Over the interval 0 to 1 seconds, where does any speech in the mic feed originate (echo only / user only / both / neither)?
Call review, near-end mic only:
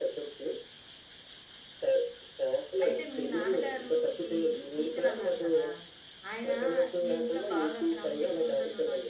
echo only